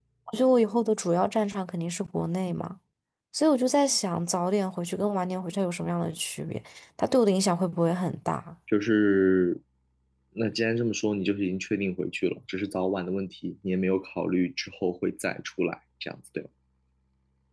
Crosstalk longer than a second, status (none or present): none